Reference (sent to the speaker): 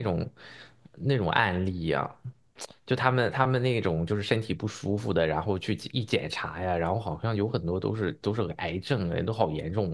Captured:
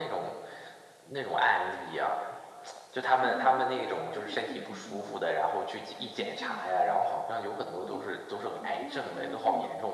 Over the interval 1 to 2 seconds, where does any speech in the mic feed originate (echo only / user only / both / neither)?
echo only